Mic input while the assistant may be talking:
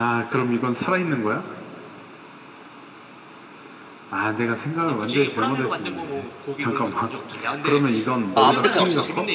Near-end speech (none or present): present